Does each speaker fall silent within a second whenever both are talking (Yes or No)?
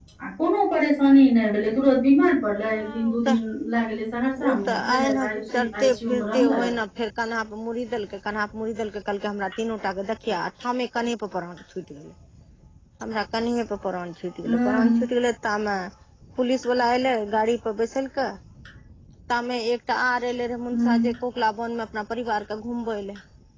No